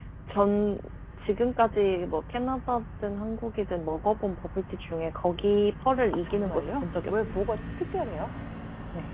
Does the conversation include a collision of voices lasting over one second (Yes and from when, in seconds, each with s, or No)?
Yes, from 6.1 s